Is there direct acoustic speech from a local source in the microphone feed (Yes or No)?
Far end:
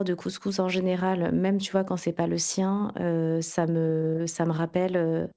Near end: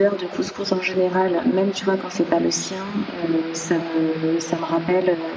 No